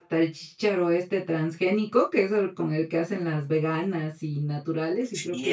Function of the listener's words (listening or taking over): taking over